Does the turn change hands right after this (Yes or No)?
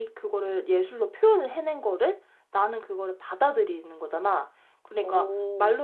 No